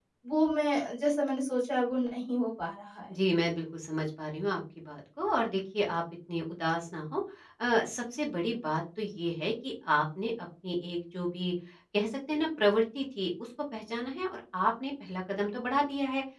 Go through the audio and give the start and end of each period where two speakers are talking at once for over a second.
none

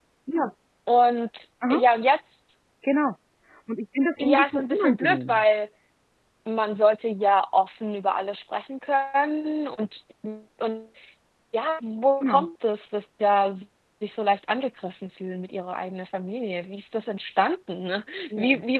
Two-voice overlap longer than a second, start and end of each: 4.2-5.4

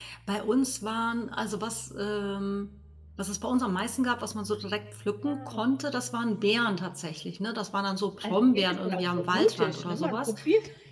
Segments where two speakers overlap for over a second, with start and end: 8.2-10.3

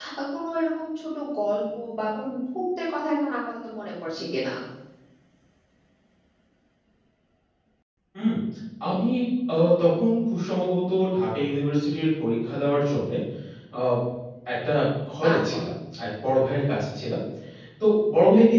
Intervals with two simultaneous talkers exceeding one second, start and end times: none

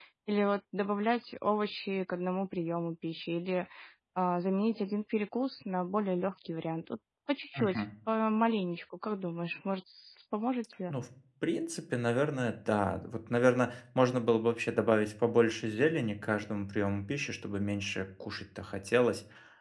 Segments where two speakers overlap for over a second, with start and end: none

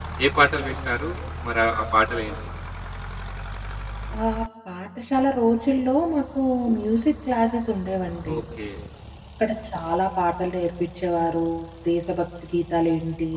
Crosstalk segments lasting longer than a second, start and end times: none

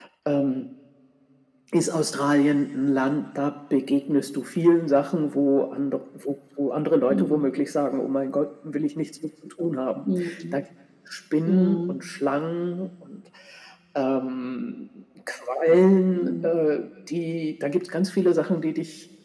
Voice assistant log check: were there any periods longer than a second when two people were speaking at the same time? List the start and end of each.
none

